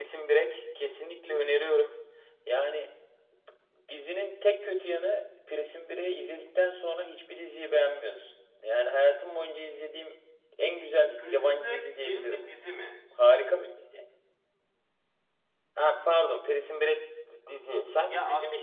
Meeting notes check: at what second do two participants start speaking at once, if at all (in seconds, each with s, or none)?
11.2 s